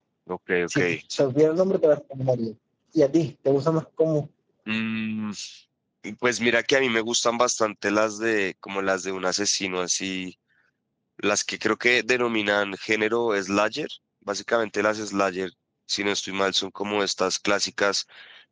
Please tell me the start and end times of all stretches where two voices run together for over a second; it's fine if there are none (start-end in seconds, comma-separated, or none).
none